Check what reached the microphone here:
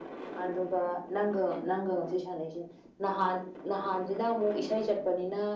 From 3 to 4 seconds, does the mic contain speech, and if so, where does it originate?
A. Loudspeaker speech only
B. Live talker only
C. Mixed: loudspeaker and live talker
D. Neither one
A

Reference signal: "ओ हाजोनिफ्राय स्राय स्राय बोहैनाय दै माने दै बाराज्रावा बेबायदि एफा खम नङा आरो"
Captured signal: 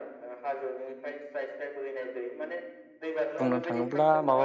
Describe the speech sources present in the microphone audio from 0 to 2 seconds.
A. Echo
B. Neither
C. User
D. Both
A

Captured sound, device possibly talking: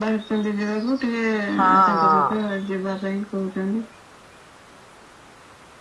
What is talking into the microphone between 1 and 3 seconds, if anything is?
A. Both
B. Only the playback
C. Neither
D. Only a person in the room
A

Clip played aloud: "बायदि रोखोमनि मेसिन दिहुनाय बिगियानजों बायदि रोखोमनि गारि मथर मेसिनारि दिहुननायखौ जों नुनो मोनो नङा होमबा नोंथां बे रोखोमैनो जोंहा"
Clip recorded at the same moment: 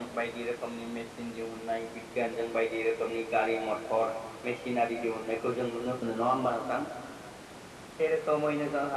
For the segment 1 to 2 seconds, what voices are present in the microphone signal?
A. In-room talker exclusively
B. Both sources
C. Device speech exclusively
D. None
C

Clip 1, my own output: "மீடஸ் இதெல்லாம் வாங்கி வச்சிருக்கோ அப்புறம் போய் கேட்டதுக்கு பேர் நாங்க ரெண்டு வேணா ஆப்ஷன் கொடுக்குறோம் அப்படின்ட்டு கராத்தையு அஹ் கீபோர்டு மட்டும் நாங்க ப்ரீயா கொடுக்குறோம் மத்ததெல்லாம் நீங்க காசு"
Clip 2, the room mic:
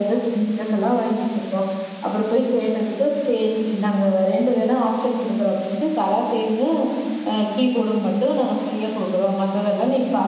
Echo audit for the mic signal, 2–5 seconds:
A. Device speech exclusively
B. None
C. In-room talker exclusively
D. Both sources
A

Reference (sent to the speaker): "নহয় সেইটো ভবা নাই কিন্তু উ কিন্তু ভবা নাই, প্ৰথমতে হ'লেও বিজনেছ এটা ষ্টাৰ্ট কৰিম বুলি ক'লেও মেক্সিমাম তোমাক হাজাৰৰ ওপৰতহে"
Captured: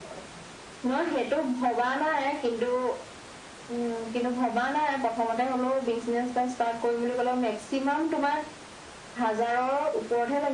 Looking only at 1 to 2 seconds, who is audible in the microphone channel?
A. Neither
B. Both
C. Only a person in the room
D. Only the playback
D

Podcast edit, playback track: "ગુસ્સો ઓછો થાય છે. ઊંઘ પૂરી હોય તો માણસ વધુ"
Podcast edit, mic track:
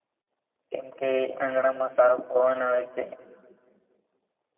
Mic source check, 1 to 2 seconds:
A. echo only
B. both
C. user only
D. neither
C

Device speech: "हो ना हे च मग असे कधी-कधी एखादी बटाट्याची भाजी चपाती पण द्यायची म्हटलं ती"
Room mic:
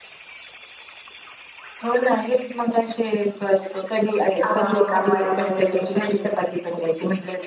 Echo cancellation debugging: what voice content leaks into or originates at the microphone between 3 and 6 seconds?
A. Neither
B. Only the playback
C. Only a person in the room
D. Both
D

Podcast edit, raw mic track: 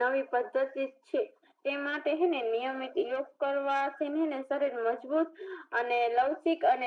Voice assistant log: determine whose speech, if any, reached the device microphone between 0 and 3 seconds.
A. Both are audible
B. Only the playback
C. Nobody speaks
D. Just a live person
B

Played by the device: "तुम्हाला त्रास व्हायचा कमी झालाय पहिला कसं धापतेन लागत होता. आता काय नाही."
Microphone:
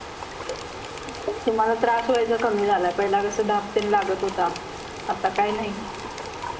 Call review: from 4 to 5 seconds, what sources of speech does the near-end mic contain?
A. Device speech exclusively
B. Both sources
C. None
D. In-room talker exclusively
A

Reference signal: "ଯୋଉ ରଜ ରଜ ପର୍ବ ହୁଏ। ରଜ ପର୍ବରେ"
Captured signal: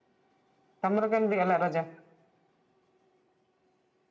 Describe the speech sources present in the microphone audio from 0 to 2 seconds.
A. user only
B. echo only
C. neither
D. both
A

